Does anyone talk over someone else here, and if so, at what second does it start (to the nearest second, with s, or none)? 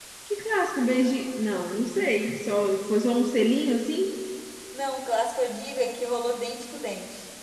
none